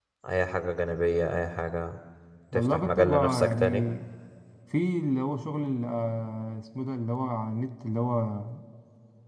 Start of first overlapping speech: 2.5 s

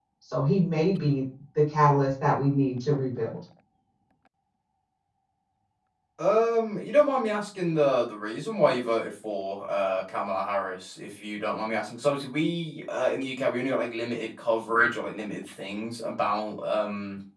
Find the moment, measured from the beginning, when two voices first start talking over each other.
none

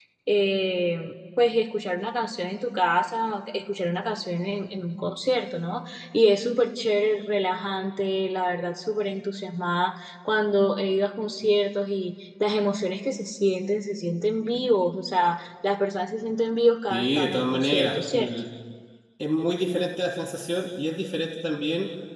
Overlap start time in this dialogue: 16.9 s

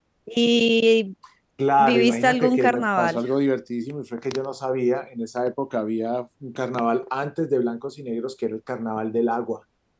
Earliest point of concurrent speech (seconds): 1.8 s

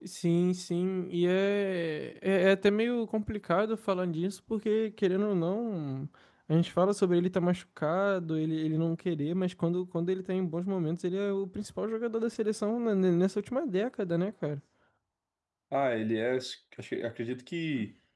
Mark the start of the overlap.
none

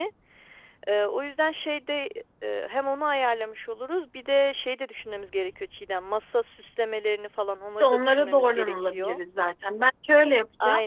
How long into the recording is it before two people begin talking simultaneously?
7.8 s

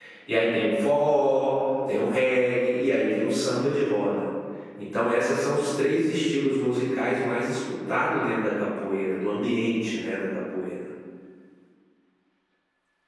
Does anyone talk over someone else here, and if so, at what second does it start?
none

